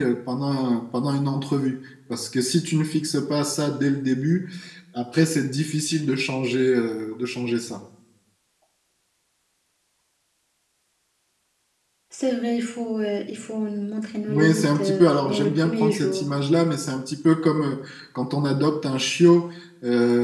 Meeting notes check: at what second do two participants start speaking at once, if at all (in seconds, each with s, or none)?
14.3 s